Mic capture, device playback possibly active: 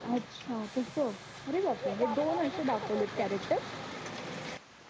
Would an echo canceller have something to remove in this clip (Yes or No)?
No